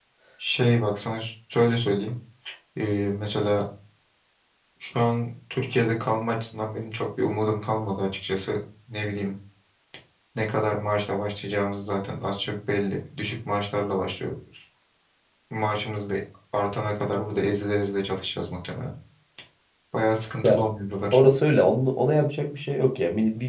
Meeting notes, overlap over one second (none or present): none